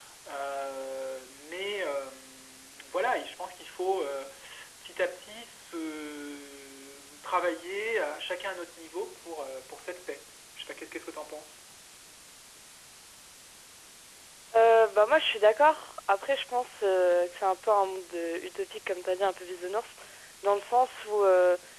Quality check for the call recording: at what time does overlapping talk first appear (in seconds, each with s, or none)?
none